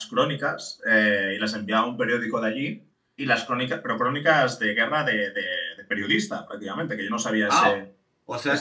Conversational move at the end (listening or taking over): taking over